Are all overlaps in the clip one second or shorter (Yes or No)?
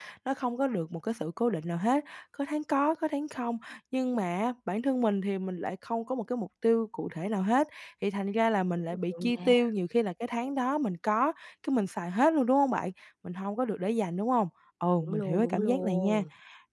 No